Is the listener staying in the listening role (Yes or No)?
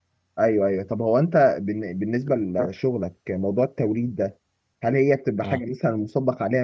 Yes